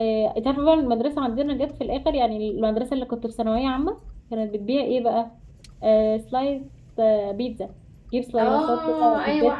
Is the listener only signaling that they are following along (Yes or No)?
No